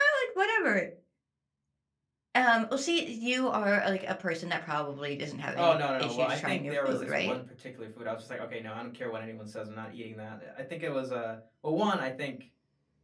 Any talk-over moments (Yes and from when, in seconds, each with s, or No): Yes, from 5.5 s